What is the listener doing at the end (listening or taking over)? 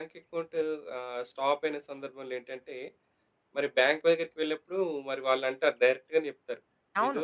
listening